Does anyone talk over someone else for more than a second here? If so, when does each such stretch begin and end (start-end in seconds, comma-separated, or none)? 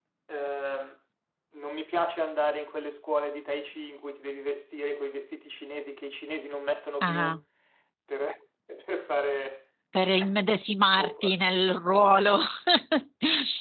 none